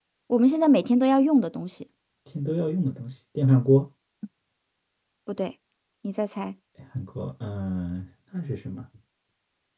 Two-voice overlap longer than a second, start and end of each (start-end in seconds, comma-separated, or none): none